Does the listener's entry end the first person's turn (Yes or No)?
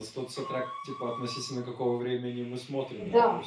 Yes